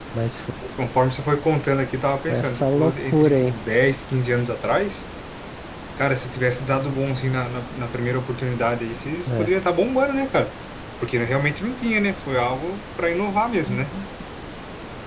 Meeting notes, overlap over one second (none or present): present